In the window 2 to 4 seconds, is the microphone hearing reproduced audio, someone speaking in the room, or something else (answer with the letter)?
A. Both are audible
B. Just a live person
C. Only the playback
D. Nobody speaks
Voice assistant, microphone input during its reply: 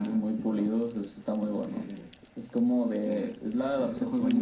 C